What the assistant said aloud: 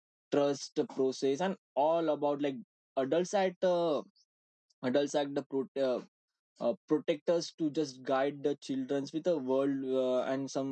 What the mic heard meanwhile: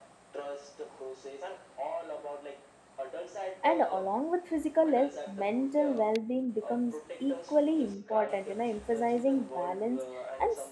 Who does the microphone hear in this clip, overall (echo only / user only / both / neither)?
both